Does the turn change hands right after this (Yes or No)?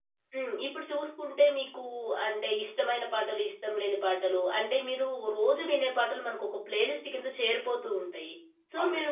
No